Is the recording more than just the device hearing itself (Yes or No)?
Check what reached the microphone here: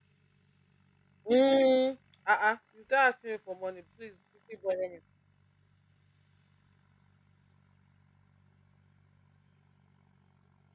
Yes